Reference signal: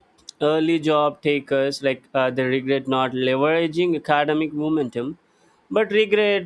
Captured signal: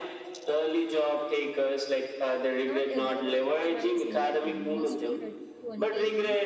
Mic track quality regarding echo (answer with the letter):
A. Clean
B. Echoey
B